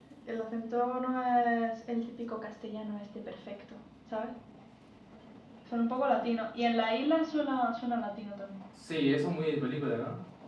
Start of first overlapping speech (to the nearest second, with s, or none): none